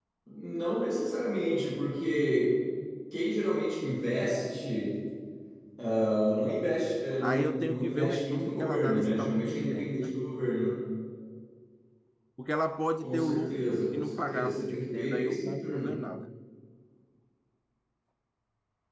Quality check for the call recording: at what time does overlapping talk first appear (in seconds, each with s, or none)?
7.2 s